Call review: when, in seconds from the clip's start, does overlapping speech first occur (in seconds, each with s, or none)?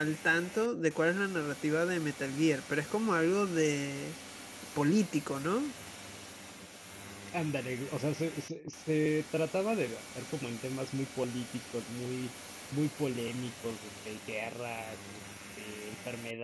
none